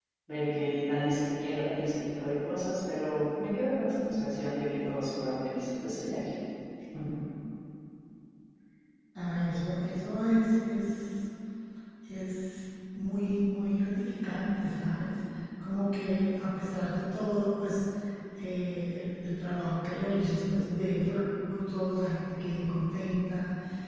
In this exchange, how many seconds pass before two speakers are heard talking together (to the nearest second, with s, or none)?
none